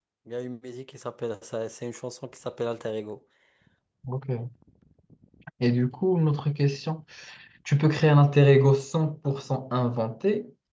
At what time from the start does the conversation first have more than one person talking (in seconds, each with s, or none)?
none